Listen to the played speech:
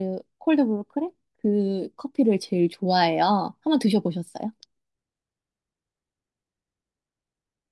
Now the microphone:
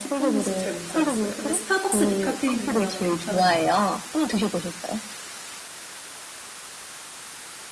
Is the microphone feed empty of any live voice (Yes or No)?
No